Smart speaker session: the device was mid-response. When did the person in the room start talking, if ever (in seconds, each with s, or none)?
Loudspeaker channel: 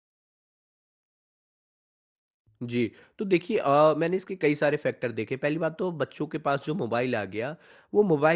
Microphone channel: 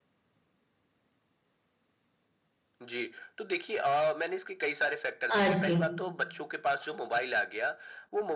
5.3 s